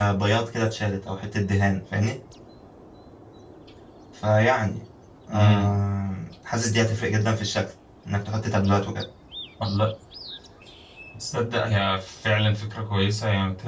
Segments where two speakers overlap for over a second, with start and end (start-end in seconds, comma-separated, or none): none